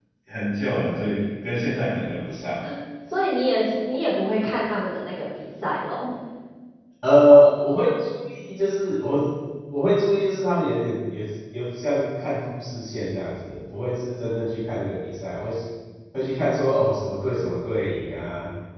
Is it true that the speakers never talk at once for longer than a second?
Yes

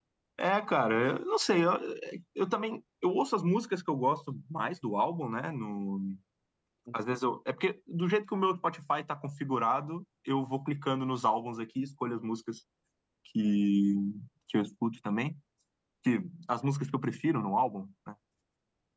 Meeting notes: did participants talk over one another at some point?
No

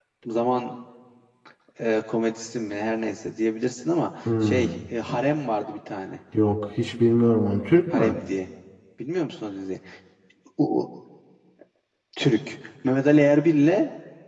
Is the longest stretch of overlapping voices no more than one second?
Yes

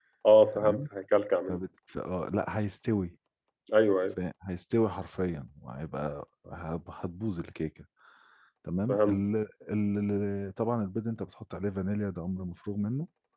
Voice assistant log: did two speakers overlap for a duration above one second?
No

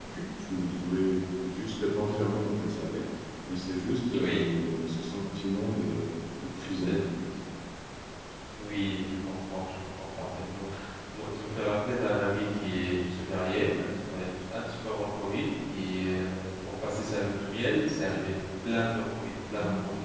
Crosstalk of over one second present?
No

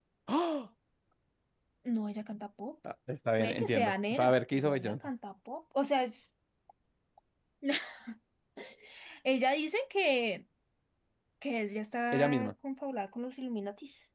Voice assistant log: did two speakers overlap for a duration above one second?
Yes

